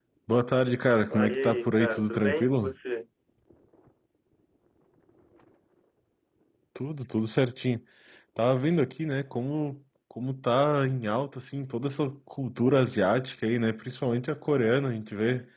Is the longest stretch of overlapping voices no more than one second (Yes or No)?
No